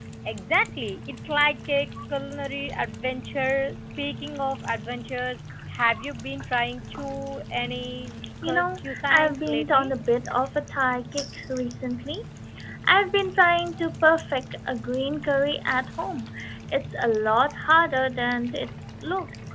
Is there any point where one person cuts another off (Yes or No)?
Yes